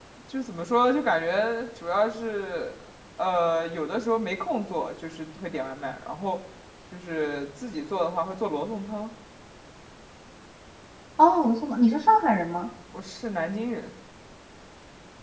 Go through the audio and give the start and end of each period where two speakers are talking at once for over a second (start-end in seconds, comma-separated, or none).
none